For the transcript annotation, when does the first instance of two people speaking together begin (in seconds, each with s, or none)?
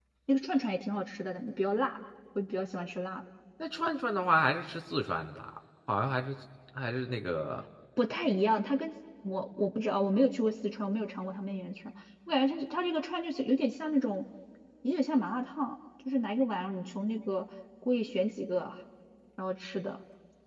none